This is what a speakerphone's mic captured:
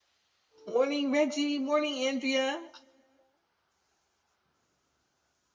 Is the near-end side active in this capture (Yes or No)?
Yes